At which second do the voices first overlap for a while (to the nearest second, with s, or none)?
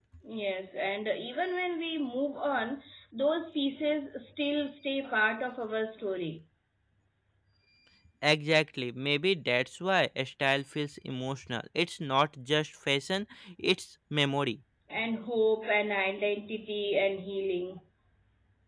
none